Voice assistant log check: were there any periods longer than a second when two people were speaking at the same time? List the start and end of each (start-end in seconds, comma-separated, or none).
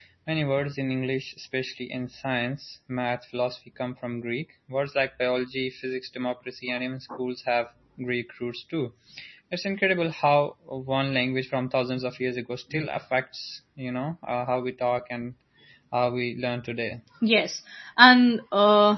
none